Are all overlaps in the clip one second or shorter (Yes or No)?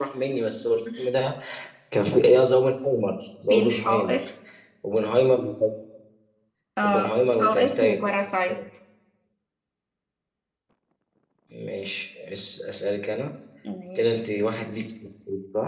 No